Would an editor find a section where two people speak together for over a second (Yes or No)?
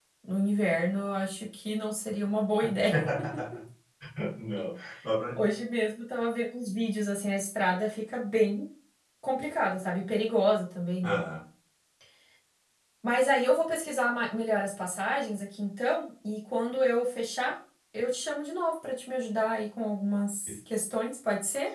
No